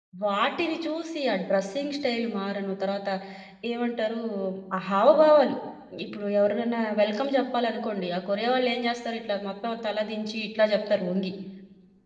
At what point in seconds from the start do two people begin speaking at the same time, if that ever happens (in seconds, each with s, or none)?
none